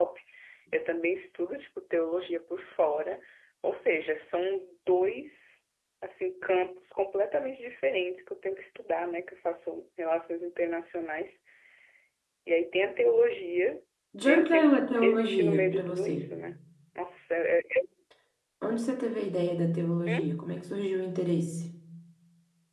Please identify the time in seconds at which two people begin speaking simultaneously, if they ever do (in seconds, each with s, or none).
14.2 s